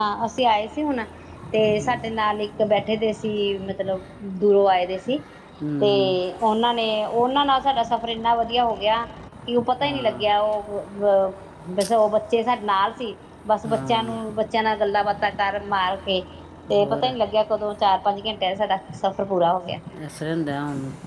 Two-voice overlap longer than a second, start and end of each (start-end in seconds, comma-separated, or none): none